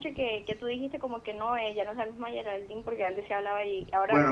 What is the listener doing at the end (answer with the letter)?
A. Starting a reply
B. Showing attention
A